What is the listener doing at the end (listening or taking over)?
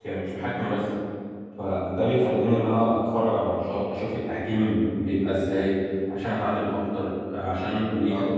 taking over